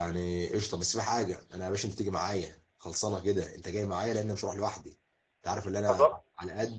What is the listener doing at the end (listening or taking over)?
listening